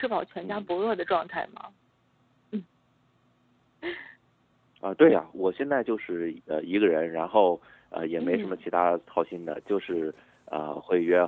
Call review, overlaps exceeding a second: none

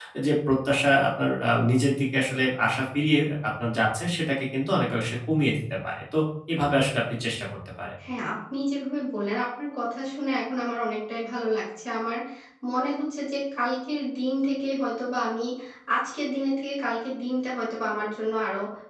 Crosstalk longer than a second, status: none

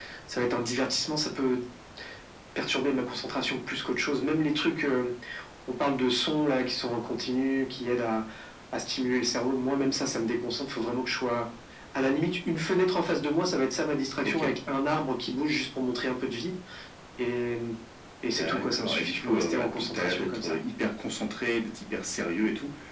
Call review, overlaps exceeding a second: present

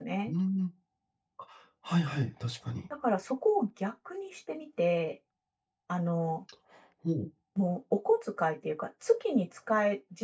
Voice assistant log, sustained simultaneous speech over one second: none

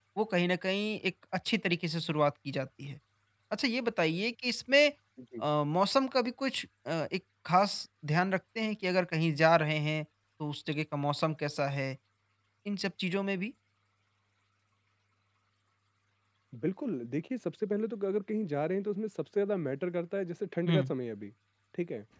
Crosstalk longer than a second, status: none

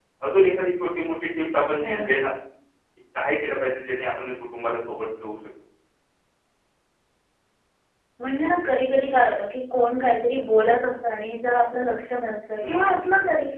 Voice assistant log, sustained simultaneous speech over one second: none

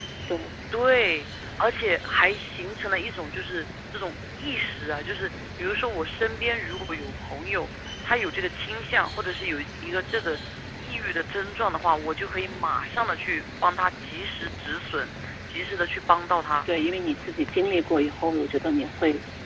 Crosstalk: none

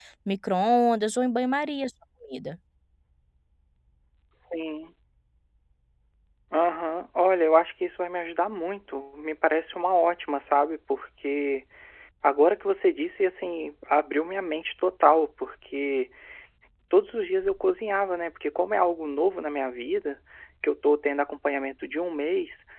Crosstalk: none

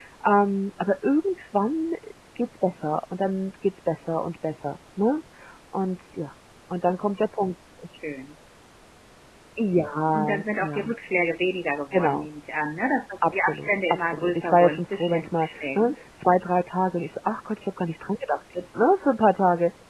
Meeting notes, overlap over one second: present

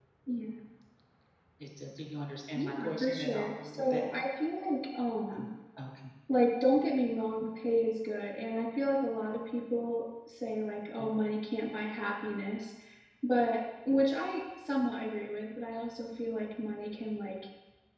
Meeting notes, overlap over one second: present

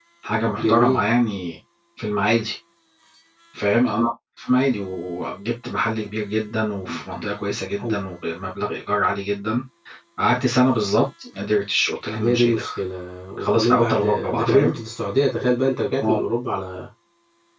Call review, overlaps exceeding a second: present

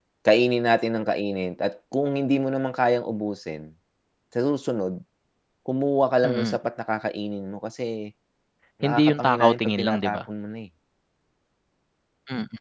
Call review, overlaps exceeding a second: present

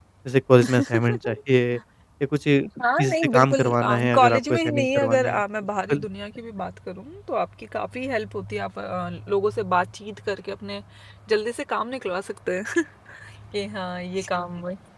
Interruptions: present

